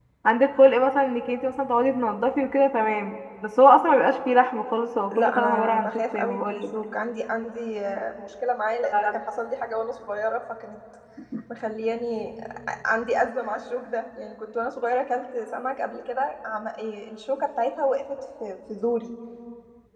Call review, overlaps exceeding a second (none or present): present